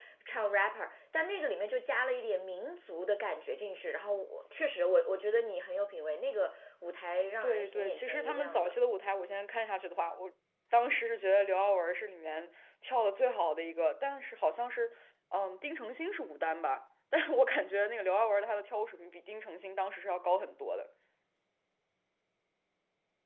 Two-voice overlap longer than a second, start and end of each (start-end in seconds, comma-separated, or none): 7.4-8.7